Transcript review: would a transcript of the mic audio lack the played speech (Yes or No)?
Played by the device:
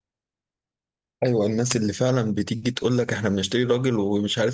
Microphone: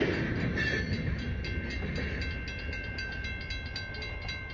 Yes